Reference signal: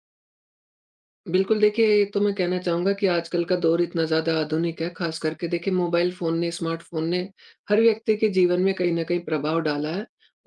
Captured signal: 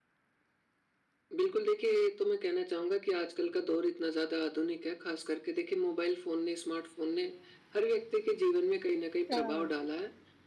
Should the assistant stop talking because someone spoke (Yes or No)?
Yes